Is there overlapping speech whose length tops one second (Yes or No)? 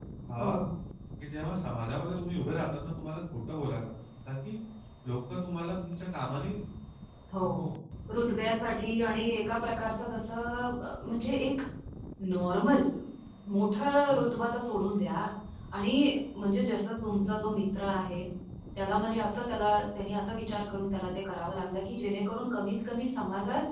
No